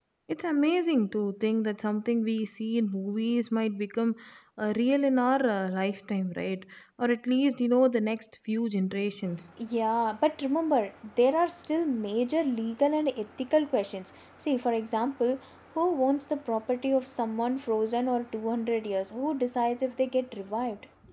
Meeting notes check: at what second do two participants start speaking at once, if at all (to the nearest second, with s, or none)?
none